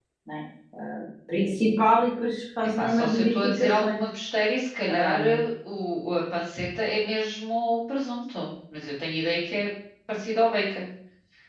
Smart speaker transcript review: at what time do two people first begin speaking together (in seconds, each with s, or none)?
2.8 s